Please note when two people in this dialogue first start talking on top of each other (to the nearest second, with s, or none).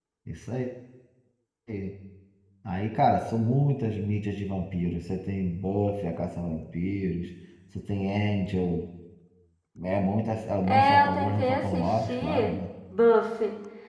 11 s